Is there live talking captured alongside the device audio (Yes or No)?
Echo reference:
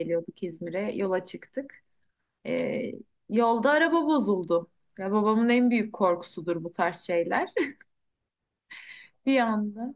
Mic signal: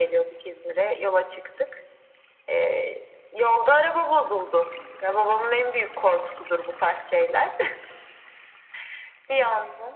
No